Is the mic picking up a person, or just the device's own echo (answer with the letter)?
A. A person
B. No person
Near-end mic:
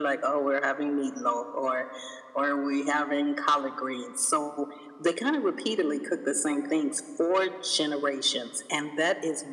B